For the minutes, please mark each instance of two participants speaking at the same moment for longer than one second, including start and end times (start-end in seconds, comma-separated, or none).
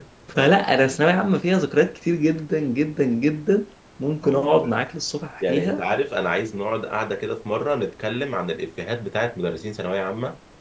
none